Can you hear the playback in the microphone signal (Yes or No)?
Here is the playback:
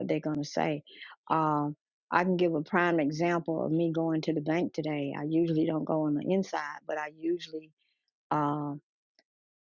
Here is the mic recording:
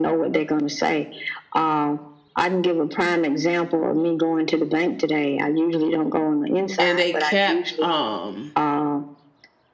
Yes